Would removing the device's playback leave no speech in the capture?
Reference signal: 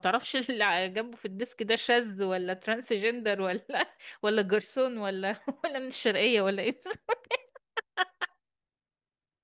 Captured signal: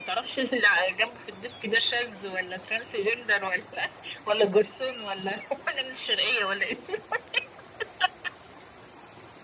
Yes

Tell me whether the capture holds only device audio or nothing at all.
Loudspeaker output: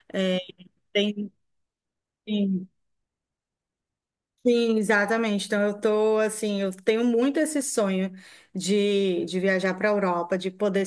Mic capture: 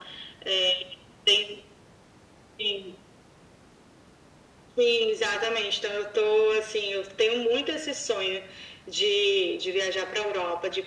Yes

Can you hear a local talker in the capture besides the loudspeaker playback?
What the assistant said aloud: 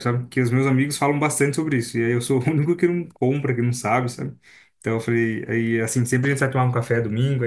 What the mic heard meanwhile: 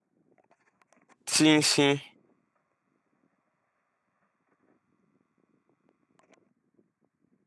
Yes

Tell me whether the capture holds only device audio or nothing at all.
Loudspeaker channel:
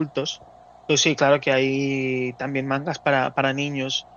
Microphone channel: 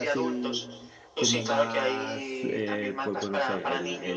No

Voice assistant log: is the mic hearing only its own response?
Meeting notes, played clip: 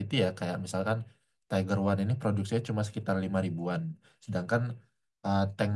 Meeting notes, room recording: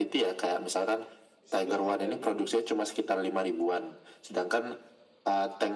No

